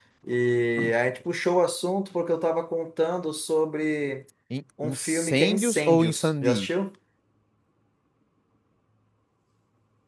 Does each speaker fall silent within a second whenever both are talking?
No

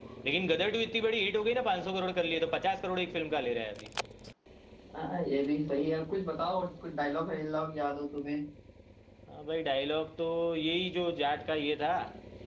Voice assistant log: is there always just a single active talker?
Yes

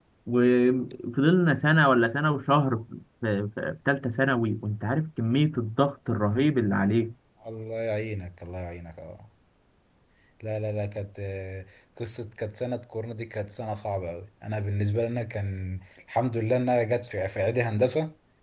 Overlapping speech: No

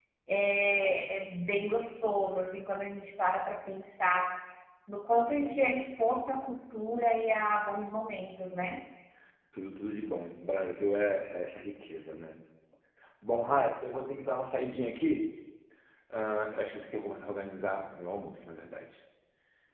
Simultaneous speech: No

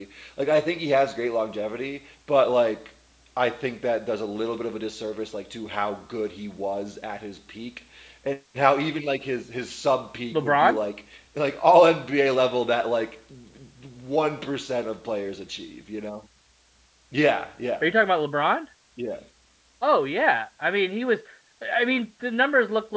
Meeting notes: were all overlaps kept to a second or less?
Yes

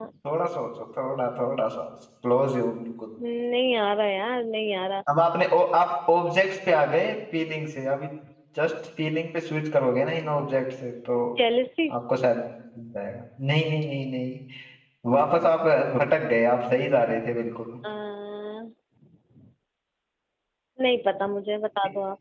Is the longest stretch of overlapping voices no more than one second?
Yes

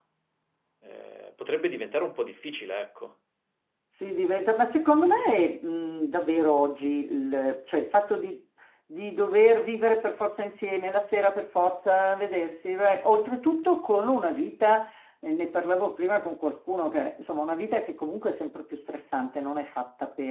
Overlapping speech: No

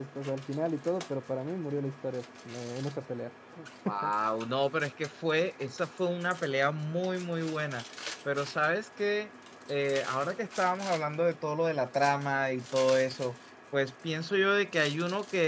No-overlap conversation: Yes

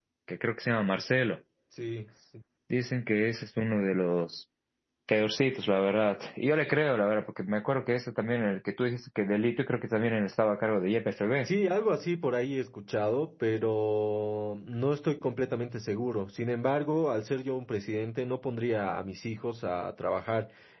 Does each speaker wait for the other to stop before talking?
Yes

